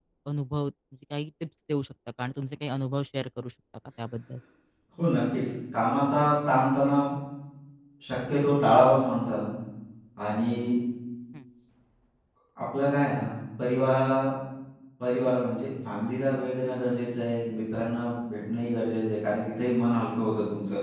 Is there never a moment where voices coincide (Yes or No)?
Yes